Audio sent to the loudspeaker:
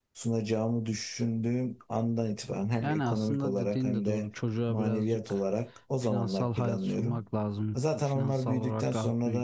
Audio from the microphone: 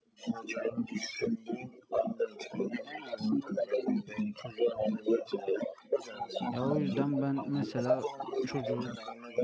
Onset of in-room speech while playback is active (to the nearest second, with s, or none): 7 s